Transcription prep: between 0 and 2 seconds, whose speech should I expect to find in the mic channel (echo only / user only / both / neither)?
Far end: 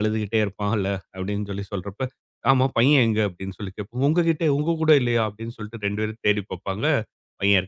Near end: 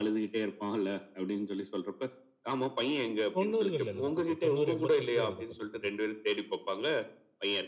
echo only